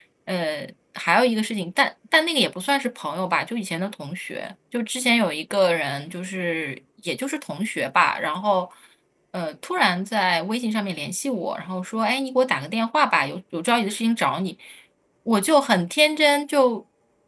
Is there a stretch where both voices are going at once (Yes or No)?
No